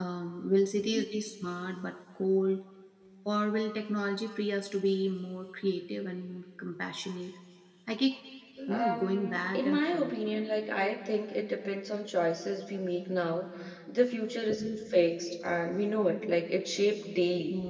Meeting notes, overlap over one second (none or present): present